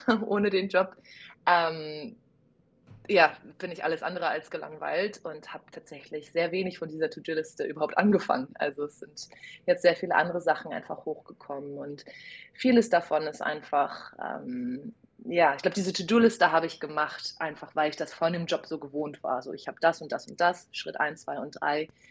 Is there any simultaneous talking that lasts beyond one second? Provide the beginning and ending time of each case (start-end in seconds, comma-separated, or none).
none